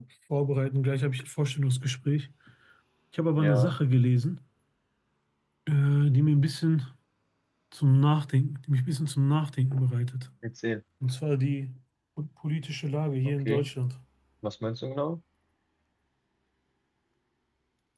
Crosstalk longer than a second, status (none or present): none